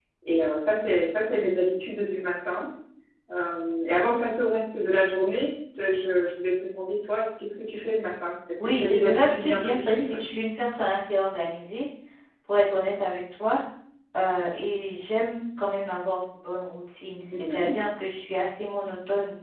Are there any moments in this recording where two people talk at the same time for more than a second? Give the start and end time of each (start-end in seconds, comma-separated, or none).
8.7-10.1